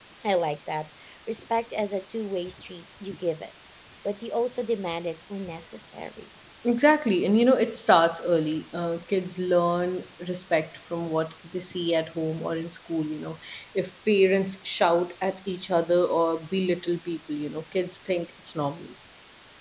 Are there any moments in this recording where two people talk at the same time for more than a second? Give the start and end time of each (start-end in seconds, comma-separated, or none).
none